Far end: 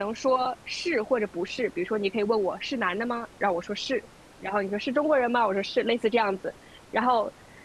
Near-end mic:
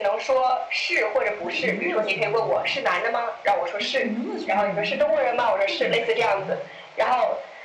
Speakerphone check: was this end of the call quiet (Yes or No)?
No